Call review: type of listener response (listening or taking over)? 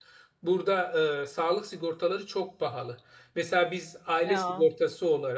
listening